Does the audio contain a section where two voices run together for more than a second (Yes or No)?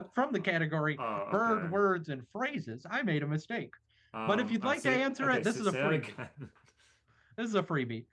Yes